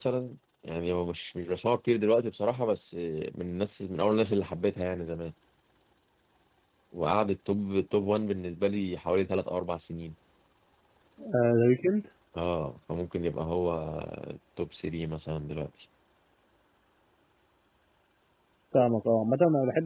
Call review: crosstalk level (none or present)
none